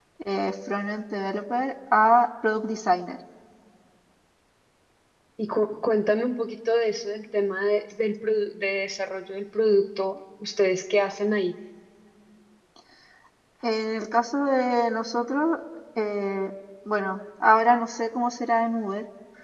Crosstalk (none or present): none